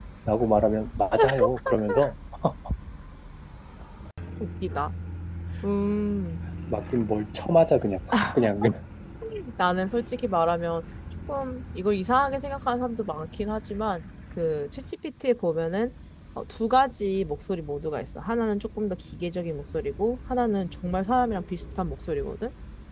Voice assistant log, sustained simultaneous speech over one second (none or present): none